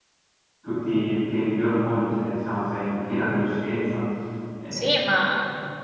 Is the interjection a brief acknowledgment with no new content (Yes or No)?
No